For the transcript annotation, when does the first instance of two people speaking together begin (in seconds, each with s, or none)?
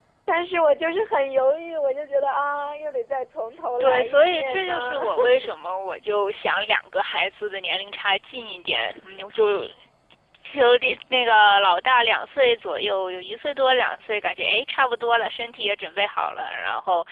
3.8 s